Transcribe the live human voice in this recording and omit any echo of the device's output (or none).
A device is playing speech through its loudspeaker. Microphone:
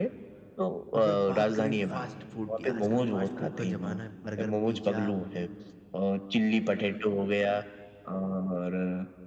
अगर बात करें फ़ास्ट फ़ूड की, आजकल फ़ास्ट फ़ूड का ज़माना है, बर्गर, पिज़्ज़ा